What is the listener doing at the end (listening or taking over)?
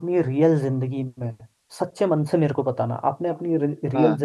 listening